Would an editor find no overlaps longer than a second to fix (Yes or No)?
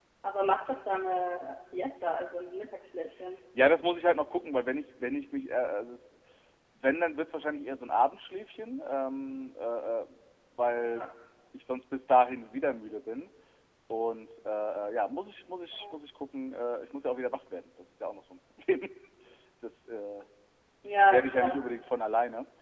Yes